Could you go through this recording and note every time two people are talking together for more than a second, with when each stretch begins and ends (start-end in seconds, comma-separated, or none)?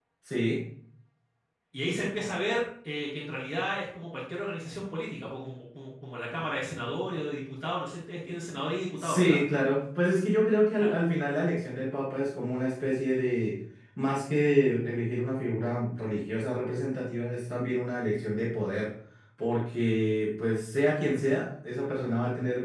none